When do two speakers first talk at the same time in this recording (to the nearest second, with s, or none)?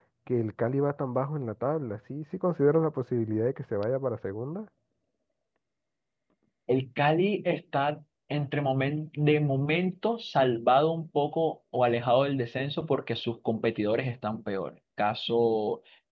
none